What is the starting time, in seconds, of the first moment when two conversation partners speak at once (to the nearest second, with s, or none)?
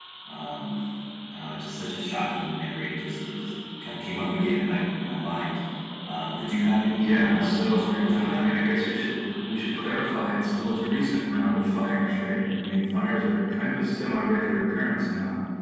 7 s